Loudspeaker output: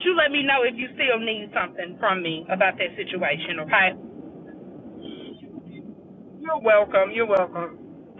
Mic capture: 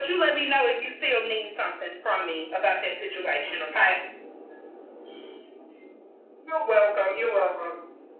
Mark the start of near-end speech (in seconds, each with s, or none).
none